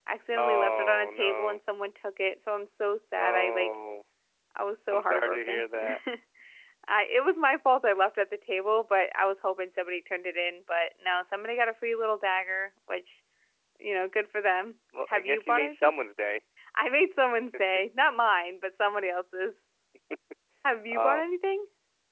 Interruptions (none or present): present